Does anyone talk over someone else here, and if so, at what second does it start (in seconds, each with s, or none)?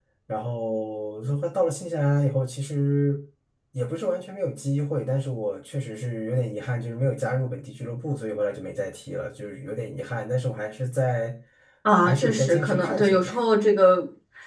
12.1 s